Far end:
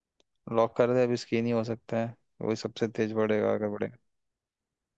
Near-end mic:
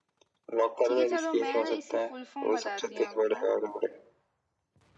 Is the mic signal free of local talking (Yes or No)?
No